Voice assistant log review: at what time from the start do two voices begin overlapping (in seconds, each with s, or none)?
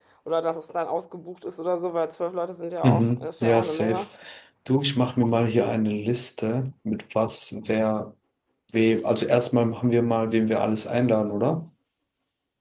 2.8 s